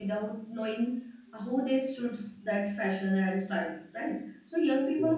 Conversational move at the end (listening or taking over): listening